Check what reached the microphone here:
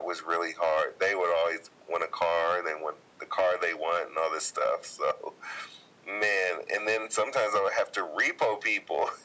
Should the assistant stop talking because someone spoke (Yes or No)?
No